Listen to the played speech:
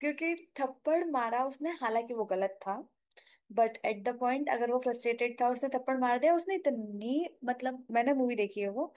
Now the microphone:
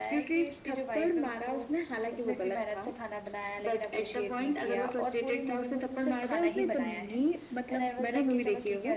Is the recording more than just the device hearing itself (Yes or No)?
Yes